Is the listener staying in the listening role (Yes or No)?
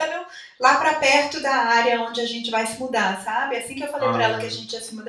Yes